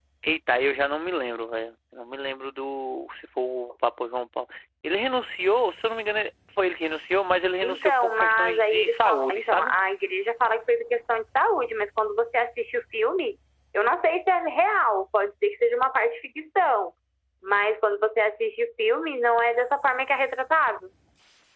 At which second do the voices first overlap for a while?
7.6 s

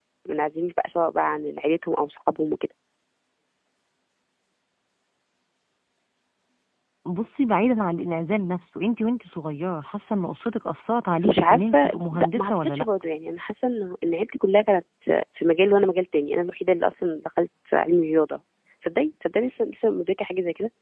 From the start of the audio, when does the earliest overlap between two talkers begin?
11.2 s

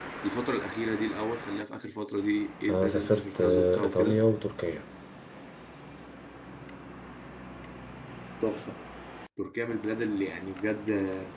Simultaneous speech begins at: 2.7 s

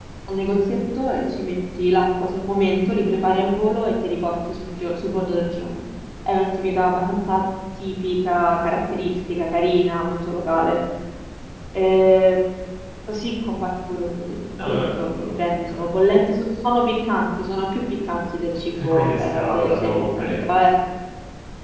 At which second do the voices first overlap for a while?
14.6 s

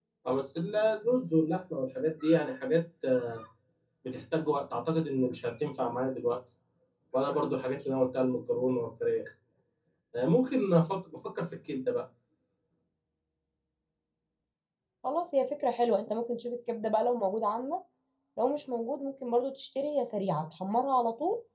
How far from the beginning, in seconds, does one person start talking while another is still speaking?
none

